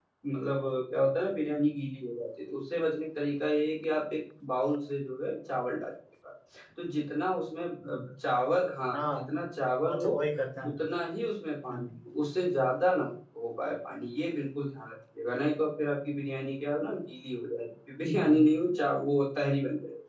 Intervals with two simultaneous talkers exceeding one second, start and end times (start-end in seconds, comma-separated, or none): none